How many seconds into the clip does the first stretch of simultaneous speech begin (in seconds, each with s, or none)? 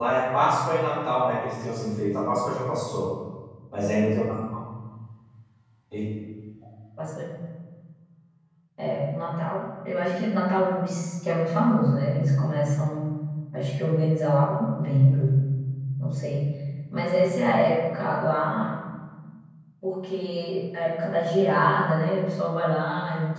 none